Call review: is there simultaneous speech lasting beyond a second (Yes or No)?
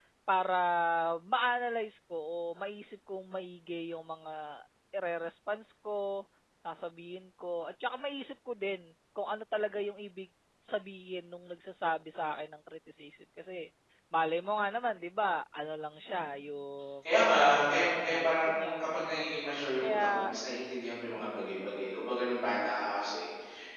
Yes